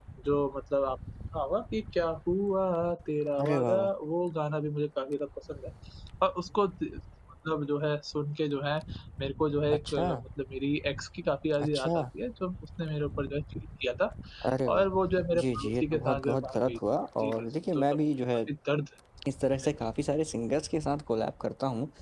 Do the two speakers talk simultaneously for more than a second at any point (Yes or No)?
Yes